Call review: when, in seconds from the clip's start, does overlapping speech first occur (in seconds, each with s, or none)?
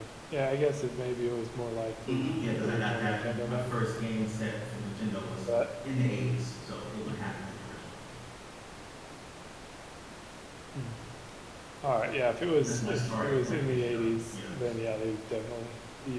2.1 s